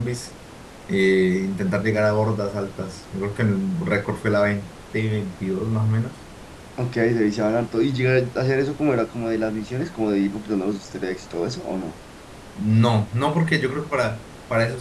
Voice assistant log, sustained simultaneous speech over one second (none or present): none